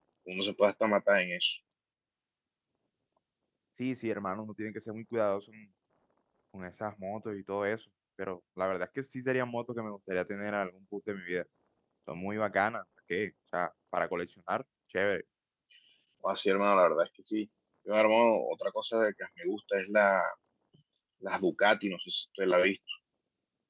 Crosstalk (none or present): none